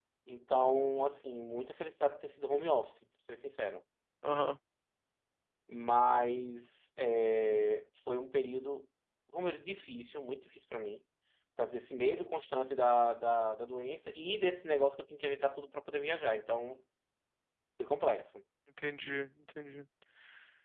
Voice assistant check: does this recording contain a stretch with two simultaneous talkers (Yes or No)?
No